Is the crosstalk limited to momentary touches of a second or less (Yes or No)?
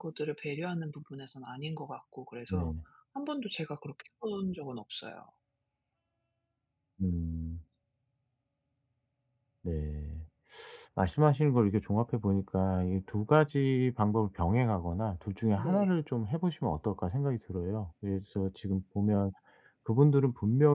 Yes